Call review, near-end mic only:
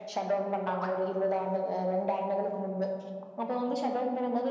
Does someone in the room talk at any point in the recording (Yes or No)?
No